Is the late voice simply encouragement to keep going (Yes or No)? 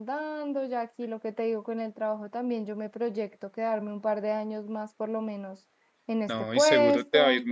No